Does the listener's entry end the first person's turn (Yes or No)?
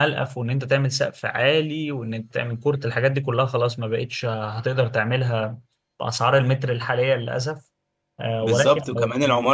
Yes